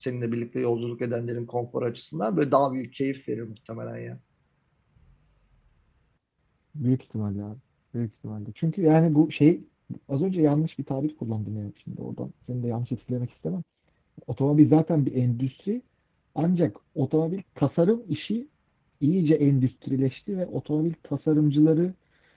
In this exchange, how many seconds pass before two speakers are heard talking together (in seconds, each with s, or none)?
none